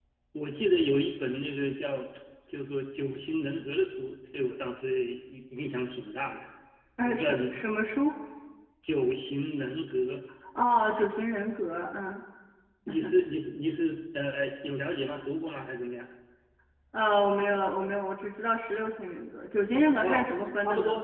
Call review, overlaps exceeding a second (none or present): none